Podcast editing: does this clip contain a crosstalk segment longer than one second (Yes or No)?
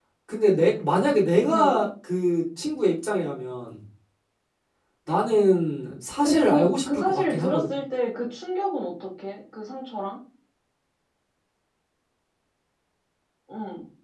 Yes